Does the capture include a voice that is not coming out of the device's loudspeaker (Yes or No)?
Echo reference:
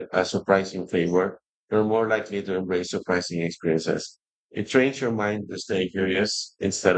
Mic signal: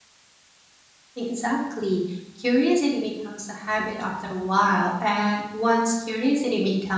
Yes